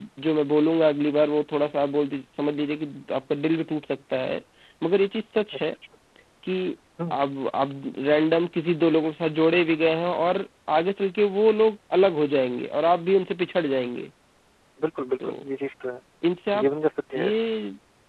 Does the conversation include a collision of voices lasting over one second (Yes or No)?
No